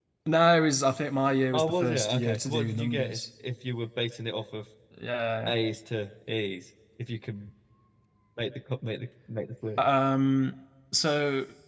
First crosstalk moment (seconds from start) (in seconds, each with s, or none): 1.5 s